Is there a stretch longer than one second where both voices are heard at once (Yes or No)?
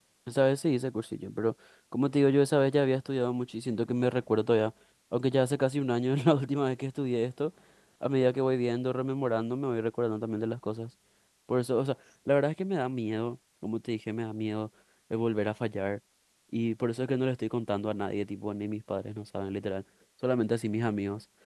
No